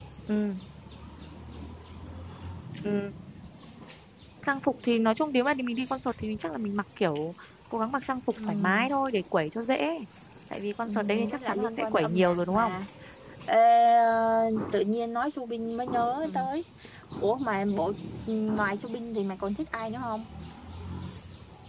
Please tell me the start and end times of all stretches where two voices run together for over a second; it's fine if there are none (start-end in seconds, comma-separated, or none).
10.9-12.7